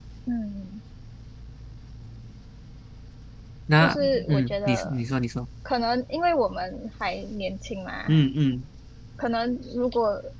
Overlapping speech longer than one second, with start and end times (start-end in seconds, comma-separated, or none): 3.8-5.0